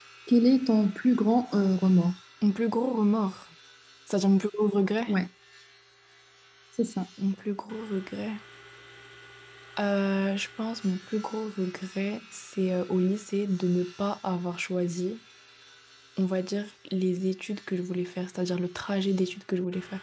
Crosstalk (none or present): none